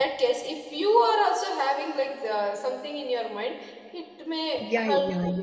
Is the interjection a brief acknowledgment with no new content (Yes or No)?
No